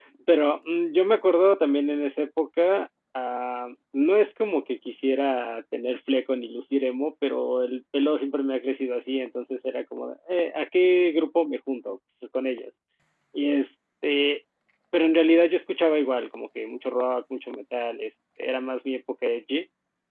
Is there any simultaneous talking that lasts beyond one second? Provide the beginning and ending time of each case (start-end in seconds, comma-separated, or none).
none